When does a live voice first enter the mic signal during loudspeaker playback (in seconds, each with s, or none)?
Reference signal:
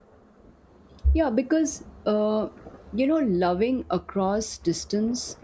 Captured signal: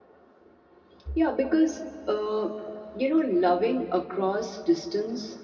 none